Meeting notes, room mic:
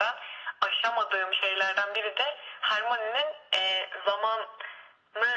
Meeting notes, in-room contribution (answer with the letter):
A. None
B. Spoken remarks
A